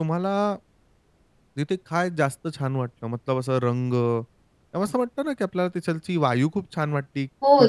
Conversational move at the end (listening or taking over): taking over